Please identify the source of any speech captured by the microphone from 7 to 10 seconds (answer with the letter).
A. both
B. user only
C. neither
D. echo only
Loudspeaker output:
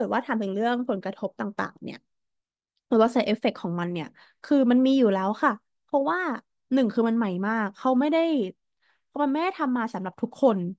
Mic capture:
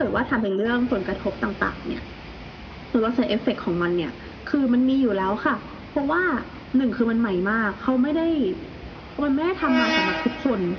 D